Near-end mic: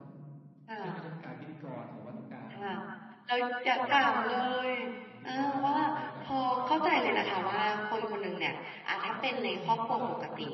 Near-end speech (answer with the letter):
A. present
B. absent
A